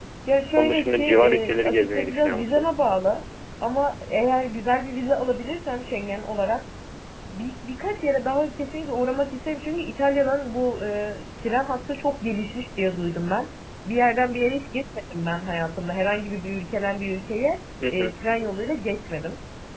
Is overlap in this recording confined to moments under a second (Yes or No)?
No